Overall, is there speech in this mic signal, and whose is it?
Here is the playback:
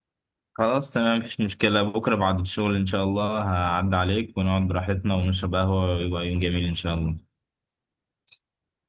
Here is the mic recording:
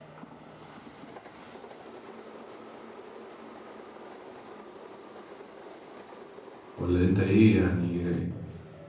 user only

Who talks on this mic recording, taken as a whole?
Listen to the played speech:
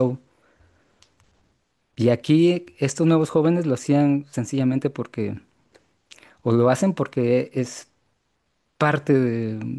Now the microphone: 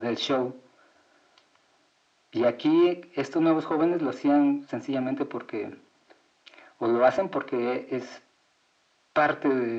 echo only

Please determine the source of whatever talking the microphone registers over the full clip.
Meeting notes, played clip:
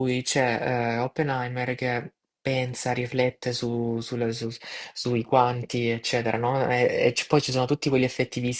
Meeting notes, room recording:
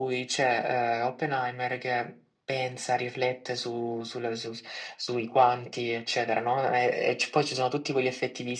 echo only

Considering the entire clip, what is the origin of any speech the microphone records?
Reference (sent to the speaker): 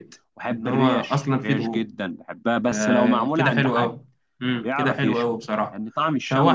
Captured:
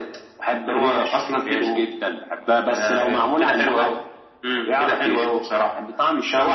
echo only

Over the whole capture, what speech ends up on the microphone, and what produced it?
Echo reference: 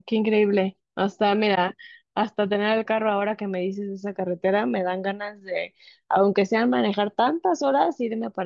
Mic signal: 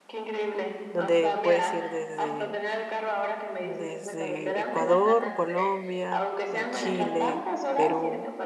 both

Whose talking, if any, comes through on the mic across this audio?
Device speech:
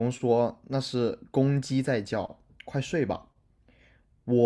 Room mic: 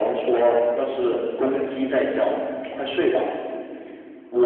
echo only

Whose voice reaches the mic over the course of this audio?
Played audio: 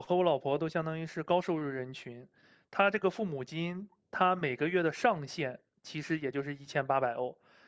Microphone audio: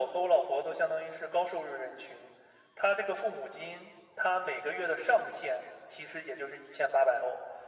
echo only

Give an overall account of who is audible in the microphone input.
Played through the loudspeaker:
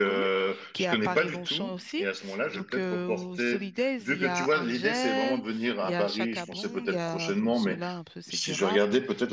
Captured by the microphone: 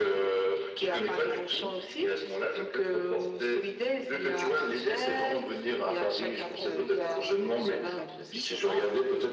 both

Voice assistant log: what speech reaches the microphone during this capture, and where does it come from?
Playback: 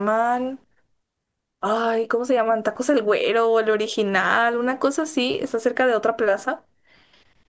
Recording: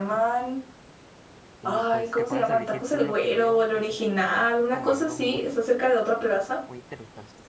both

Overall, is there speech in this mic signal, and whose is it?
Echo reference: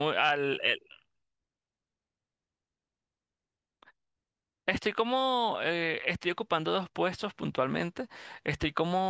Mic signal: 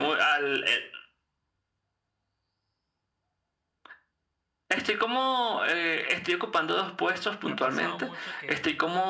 both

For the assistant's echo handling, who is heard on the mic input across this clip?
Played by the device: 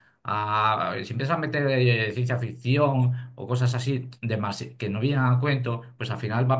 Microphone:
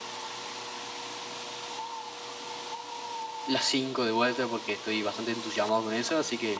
user only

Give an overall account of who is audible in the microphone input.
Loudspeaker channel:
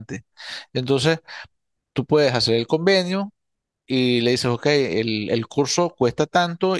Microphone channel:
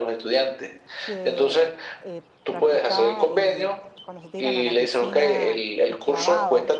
both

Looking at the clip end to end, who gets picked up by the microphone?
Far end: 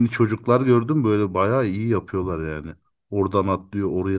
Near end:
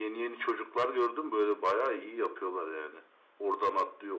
echo only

